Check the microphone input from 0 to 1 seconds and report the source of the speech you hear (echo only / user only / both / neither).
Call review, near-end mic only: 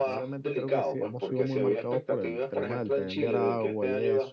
both